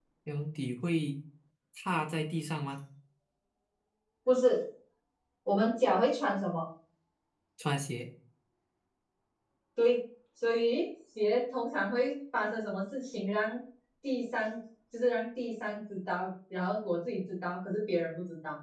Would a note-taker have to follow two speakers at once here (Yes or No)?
No